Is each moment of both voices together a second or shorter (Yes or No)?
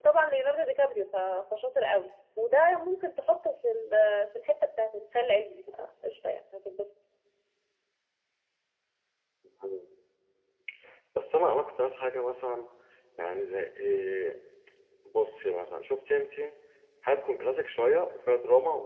Yes